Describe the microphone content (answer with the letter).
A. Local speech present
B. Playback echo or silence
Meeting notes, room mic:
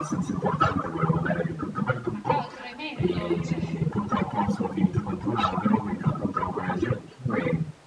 A